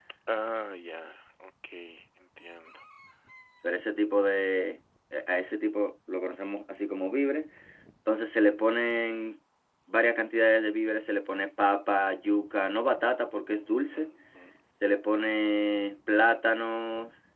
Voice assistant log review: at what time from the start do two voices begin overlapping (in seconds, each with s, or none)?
none